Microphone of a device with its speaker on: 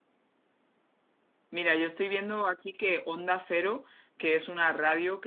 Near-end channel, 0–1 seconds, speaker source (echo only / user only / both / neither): neither